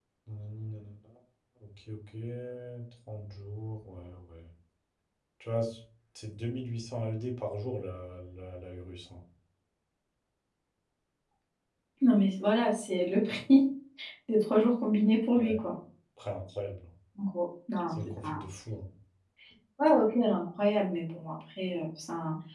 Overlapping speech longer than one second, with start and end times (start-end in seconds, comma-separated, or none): none